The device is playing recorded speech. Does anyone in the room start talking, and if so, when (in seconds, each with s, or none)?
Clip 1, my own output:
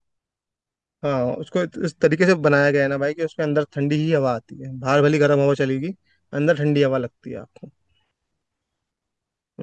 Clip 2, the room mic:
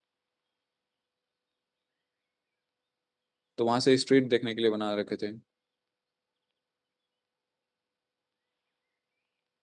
3.6 s